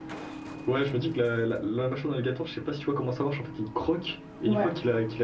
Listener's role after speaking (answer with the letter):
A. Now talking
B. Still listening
B